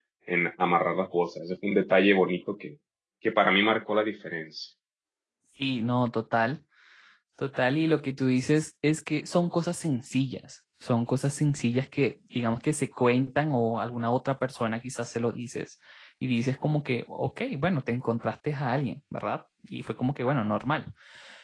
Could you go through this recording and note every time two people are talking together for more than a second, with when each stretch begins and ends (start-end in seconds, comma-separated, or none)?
none